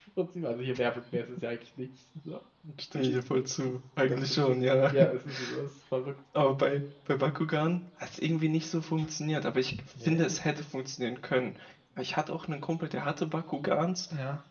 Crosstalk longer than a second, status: none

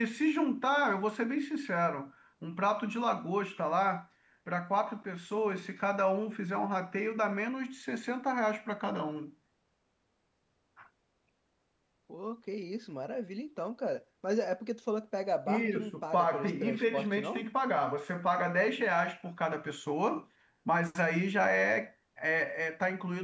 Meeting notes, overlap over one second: present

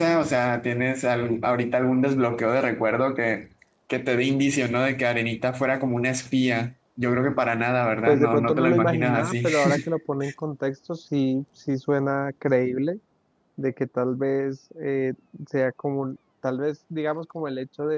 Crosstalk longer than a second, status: present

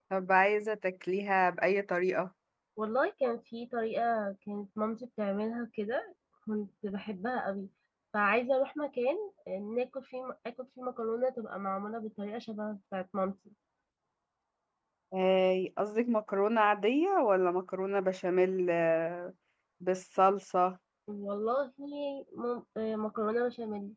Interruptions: none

